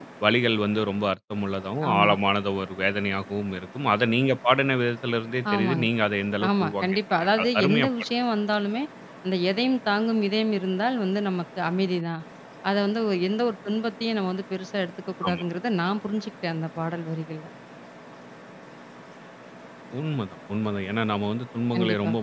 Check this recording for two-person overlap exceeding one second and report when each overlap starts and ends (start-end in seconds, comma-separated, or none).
6.5-7.9